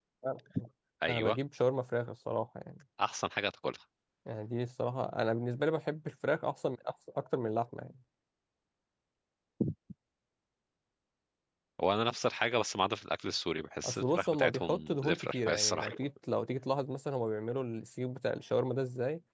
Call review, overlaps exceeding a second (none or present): present